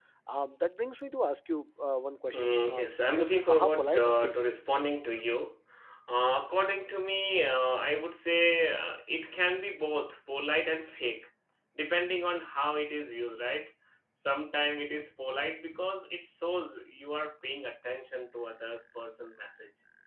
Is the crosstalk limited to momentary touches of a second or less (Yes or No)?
No